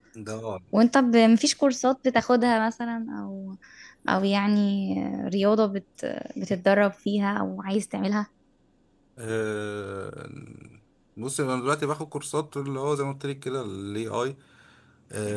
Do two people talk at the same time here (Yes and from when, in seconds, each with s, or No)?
No